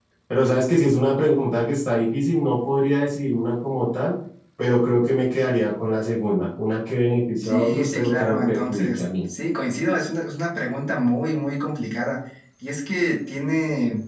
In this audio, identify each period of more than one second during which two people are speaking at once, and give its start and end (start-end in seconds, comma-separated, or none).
7.4-9.0